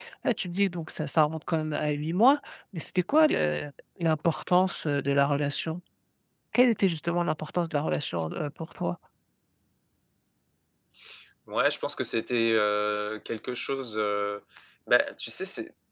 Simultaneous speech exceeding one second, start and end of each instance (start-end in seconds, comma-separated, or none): none